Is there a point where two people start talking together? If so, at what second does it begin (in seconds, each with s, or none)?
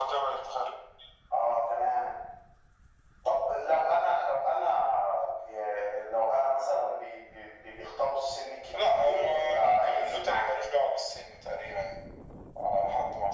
8.7 s